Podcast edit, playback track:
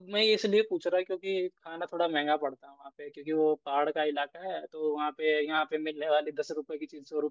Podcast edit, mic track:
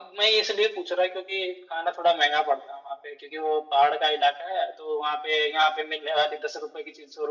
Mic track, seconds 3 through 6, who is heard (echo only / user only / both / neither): echo only